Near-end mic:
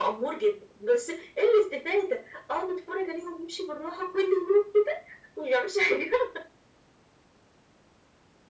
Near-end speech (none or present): none